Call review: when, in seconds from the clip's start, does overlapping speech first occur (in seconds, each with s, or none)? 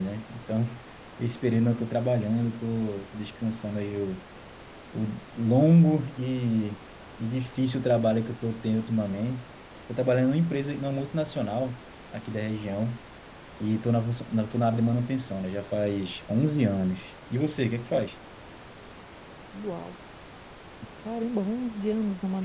none